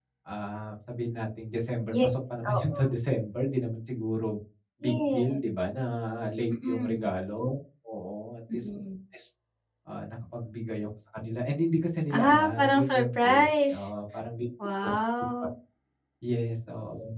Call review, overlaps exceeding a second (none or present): present